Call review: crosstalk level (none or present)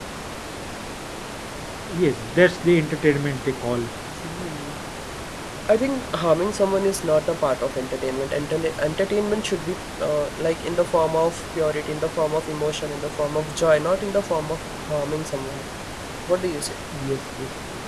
none